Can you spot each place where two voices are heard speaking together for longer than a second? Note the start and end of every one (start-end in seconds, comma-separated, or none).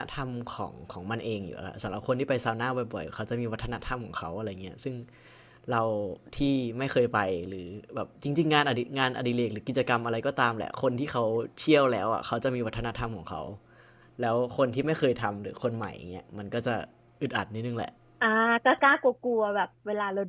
none